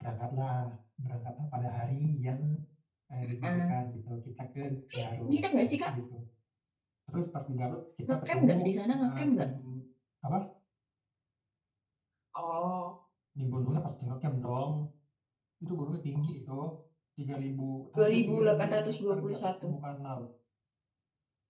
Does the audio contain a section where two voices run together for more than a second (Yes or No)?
Yes